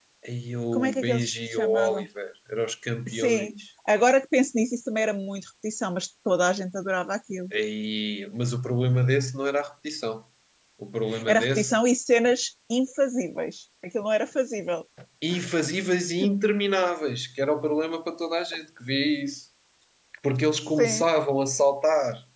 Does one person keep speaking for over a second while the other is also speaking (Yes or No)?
Yes